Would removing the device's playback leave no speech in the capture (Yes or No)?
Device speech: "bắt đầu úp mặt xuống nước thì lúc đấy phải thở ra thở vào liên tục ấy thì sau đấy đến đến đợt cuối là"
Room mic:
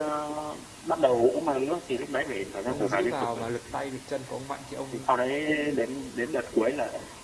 No